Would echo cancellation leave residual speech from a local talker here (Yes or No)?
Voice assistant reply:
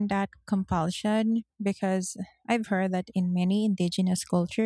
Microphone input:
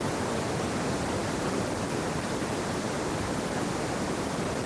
No